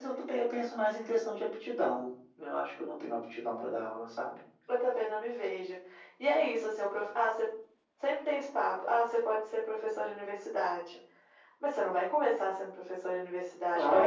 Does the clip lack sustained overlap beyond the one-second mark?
Yes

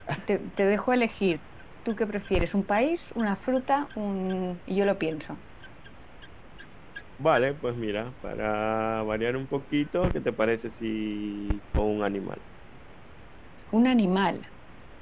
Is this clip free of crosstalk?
Yes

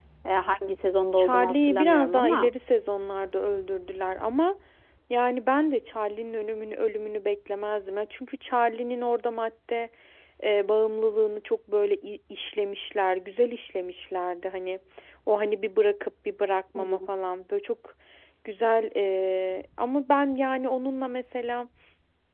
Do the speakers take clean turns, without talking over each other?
No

